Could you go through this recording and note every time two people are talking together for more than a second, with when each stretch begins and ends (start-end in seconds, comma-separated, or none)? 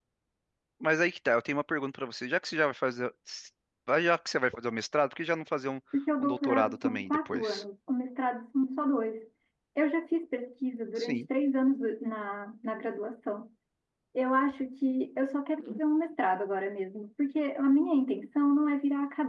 6.2-7.6